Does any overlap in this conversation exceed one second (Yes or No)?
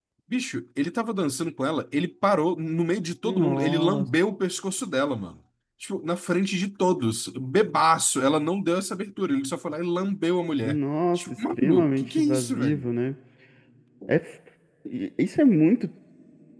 Yes